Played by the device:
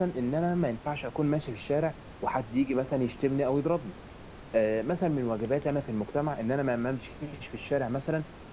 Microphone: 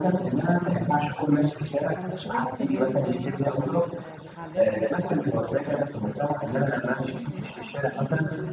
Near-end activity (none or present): present